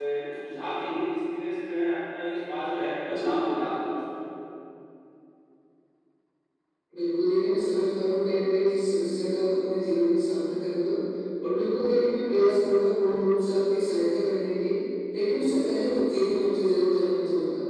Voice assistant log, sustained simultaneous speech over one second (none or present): none